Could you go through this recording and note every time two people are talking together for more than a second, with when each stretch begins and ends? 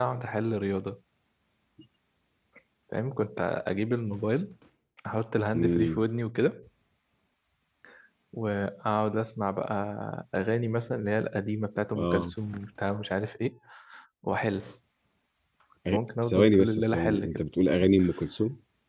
15.9-17.4

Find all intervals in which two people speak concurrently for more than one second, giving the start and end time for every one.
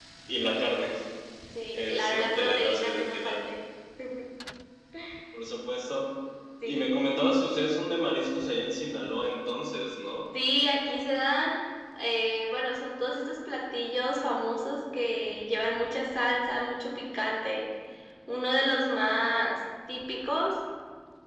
1.7-3.4

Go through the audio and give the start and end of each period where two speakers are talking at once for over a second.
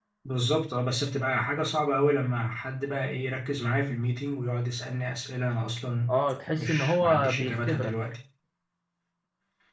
6.5-7.9

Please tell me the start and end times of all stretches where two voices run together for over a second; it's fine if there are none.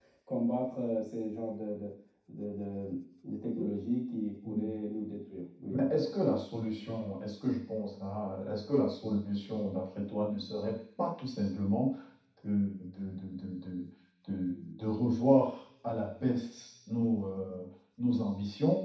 none

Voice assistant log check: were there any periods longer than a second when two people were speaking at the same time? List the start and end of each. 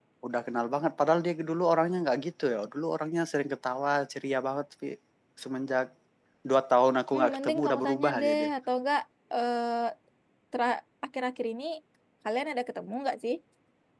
7.1-8.5

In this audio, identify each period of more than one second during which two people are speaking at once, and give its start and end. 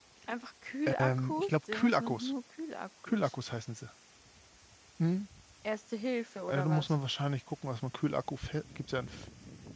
1.0-2.3

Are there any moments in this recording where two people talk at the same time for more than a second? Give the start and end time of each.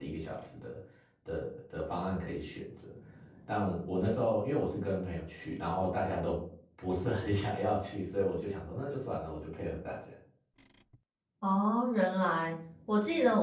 none

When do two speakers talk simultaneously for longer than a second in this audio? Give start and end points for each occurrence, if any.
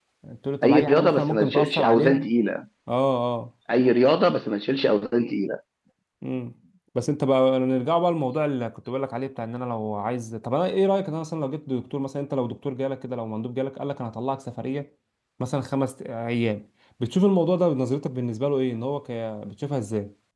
0.6-2.2

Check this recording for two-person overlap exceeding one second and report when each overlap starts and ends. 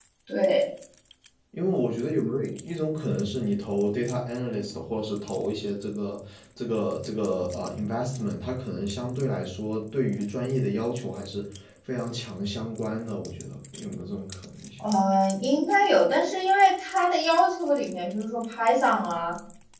none

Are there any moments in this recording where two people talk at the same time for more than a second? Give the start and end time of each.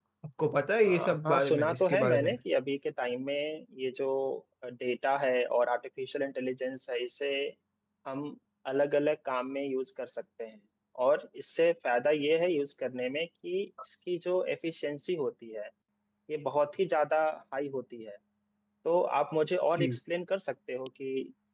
0.8-2.3

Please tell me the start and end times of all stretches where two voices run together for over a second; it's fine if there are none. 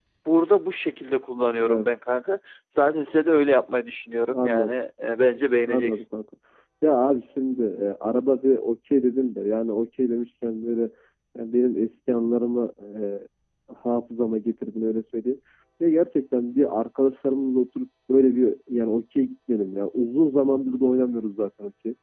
none

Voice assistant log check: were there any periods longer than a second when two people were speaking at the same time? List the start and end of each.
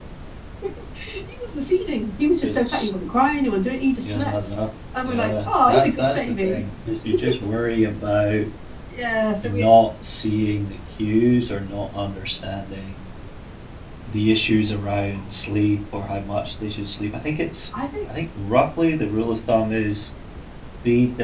5.0-6.6

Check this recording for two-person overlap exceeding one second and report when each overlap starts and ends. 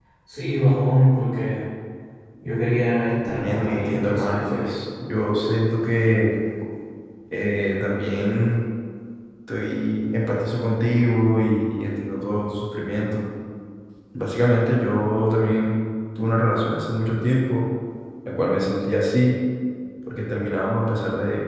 3.2-4.6

